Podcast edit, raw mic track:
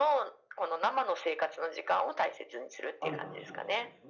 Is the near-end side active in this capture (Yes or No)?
Yes